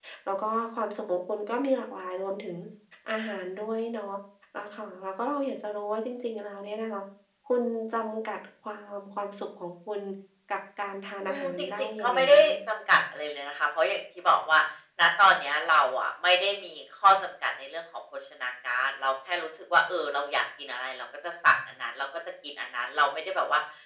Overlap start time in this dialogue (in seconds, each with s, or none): 11.3 s